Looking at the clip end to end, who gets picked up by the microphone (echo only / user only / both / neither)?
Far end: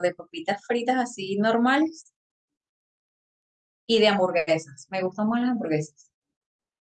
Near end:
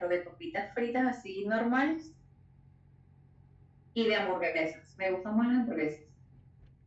echo only